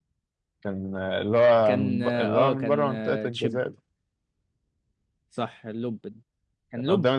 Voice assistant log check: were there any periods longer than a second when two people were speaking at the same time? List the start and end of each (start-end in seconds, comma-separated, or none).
1.6-3.6